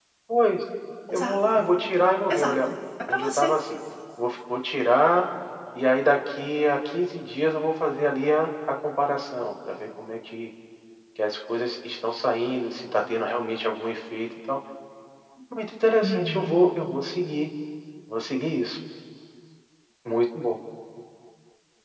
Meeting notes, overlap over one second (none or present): none